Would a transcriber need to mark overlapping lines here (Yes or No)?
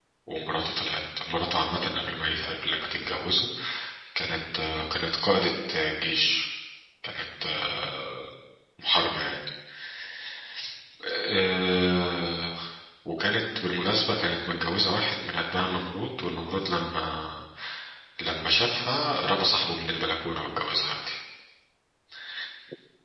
No